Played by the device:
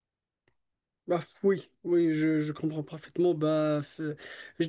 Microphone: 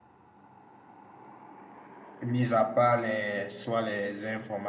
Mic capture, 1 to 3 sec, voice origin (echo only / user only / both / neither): user only